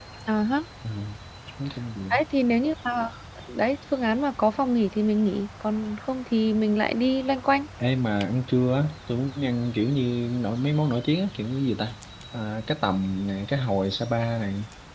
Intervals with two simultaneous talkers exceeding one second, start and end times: none

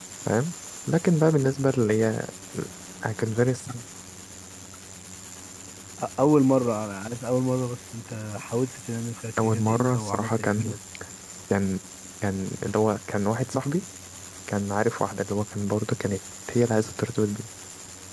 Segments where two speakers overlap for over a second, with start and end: 9.4-10.7

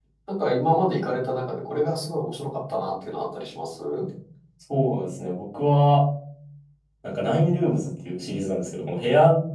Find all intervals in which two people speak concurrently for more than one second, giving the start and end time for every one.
none

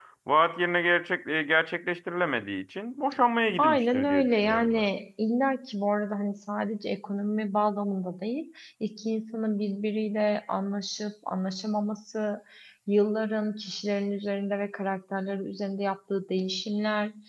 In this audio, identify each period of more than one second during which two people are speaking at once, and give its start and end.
3.6-4.8

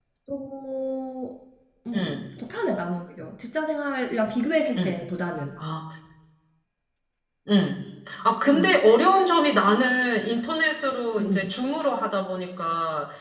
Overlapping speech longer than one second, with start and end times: none

